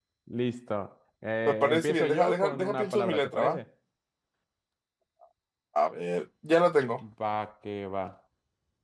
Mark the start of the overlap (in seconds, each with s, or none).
1.5 s